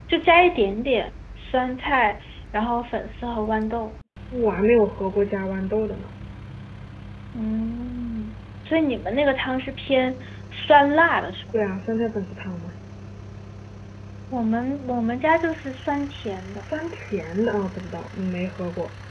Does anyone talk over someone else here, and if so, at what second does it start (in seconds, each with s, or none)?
none